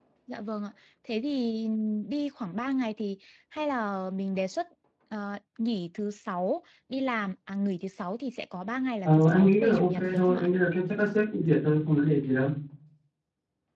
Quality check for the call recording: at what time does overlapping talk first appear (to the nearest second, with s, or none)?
9 s